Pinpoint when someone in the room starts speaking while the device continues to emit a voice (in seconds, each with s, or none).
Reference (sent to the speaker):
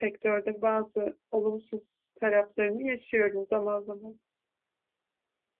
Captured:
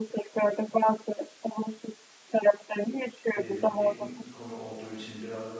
3.4 s